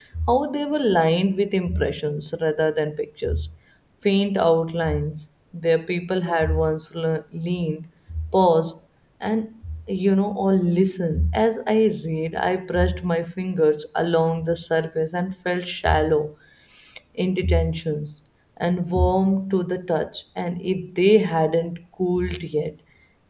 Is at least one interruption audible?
No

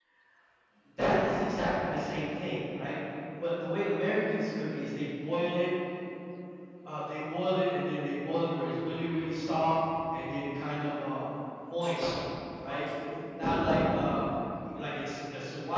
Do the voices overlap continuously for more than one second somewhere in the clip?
No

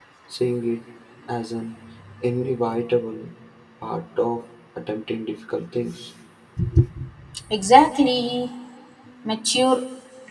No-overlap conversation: Yes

